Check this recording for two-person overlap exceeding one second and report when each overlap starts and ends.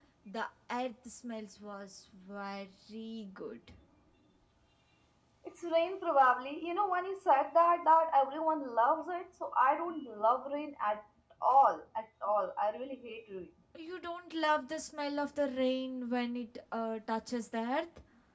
none

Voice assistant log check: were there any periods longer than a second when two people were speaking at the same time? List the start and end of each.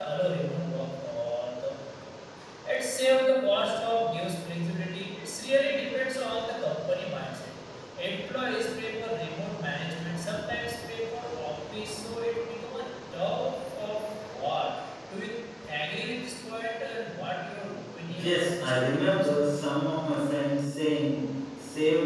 18.1-19.6

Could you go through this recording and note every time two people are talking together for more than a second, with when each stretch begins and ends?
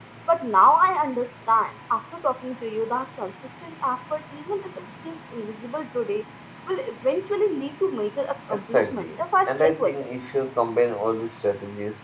8.5-10.0

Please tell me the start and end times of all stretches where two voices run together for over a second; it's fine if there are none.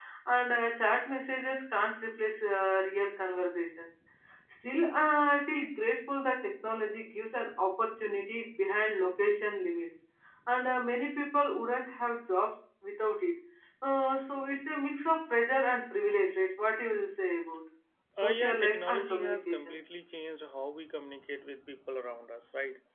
18.2-19.8

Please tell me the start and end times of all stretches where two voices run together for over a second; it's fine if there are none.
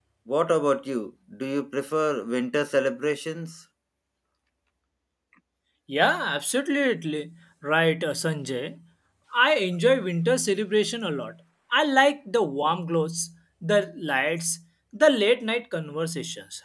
none

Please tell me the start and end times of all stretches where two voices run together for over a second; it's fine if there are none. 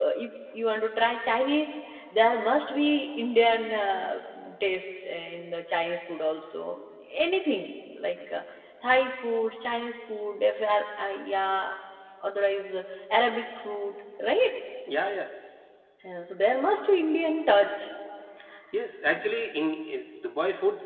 none

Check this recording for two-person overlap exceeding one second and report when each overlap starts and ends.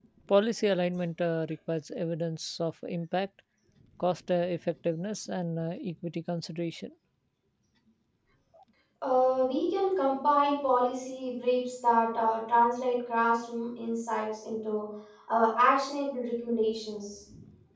none

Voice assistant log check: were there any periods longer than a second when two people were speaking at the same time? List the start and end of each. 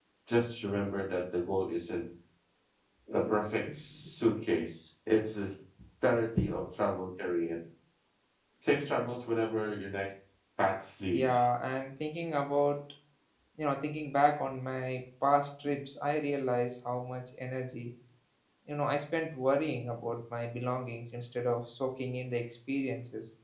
none

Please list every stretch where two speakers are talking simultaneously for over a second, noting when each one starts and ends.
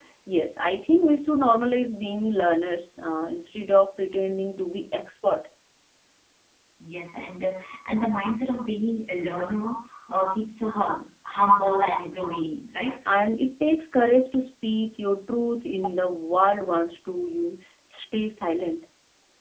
none

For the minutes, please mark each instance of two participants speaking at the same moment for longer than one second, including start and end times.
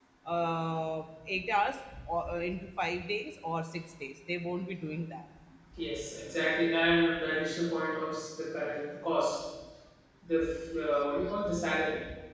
none

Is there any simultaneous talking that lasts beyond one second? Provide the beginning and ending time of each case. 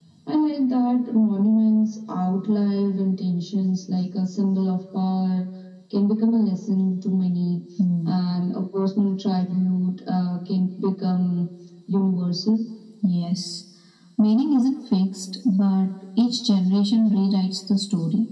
none

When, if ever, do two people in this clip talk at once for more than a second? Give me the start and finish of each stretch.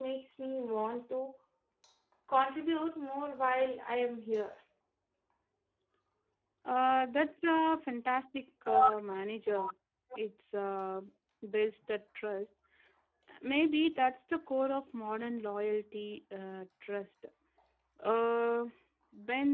none

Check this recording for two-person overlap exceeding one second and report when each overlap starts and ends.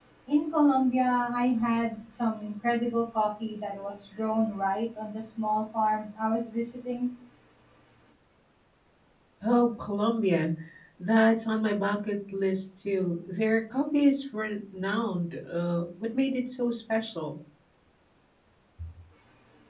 none

